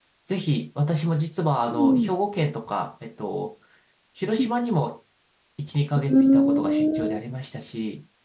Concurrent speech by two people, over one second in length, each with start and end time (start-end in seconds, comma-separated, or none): 6.0-7.2